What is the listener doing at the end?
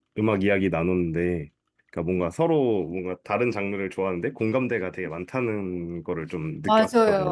taking over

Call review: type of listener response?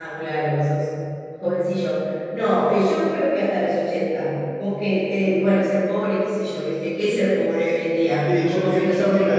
taking over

